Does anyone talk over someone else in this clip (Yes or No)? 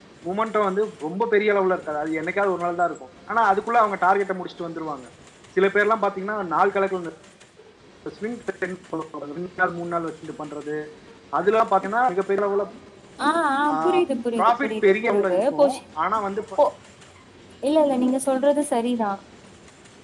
Yes